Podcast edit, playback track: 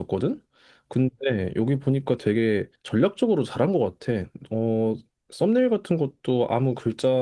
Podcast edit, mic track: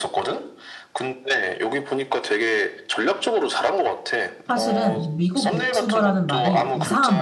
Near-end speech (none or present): present